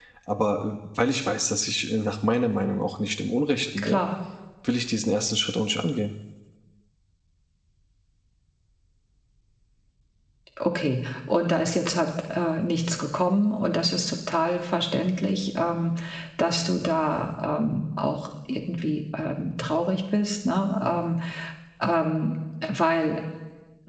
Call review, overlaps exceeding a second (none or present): none